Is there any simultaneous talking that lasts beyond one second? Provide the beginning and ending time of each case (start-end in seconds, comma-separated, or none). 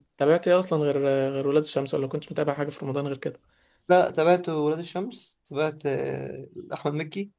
none